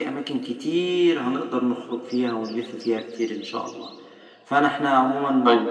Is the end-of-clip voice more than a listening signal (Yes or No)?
No